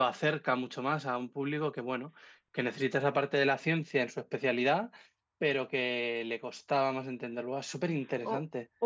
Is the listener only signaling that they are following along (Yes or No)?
No